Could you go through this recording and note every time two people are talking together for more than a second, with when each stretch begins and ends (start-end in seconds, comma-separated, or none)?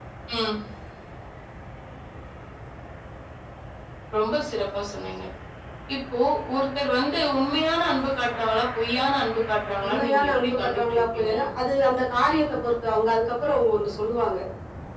9.8-11.3